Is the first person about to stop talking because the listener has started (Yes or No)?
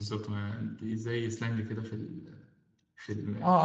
Yes